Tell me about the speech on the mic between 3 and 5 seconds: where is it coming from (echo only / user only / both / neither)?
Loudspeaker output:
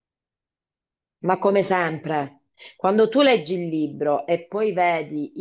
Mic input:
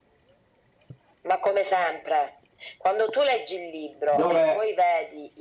both